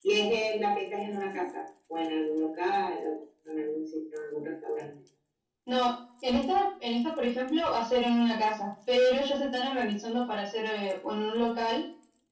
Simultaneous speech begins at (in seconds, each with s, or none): none